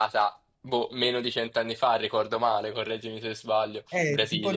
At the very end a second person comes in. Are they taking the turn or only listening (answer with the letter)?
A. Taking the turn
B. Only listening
A